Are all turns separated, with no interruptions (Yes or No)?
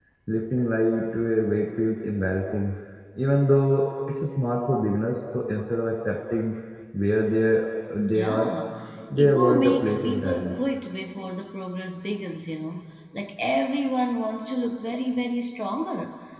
No